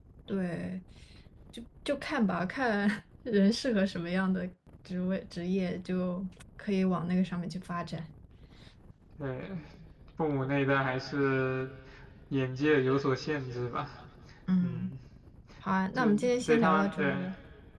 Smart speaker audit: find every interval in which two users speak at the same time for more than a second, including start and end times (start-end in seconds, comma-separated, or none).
16.0-17.3